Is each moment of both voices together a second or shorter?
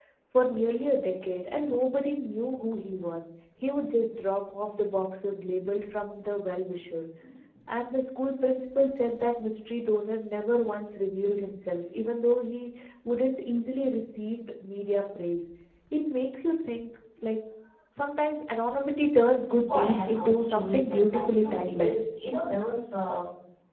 No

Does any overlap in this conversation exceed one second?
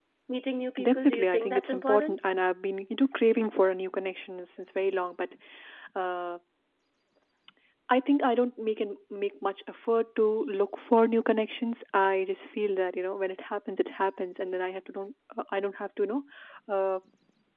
Yes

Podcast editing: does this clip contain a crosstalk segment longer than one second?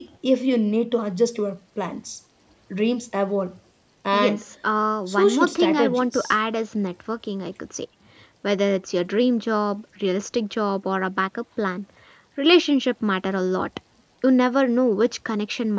Yes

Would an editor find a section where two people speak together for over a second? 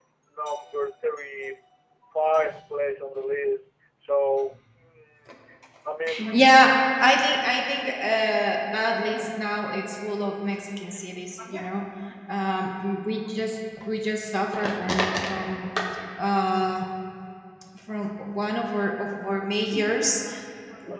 No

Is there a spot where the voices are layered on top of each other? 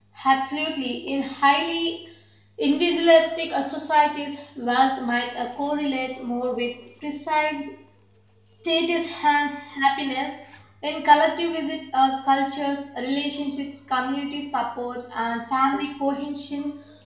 No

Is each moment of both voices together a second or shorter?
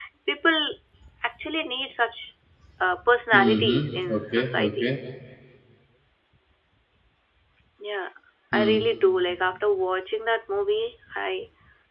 No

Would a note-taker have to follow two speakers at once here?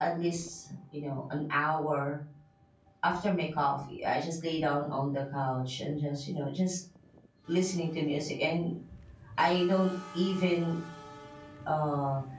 No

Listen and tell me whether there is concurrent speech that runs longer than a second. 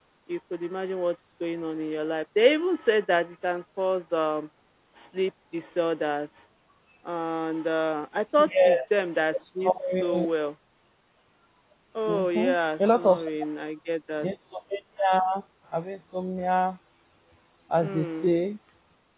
Yes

